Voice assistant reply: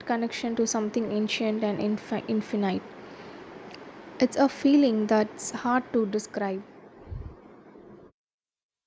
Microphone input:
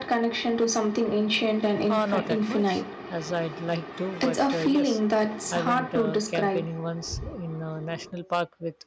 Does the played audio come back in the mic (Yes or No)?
Yes